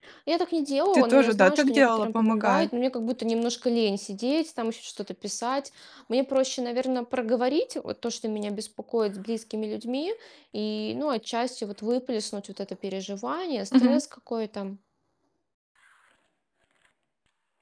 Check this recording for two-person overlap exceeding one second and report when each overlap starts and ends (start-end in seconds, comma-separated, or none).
0.9-2.7